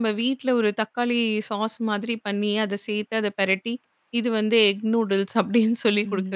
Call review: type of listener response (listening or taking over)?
taking over